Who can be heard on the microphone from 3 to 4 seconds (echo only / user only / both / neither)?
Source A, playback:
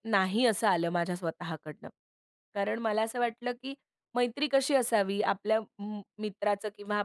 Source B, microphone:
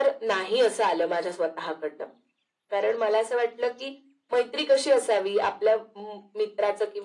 echo only